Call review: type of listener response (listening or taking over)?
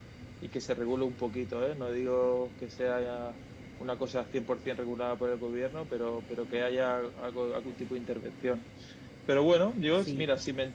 listening